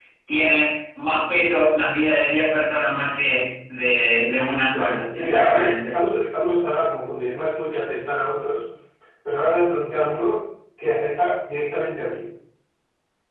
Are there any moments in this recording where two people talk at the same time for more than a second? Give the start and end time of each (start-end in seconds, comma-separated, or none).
4.7-6.0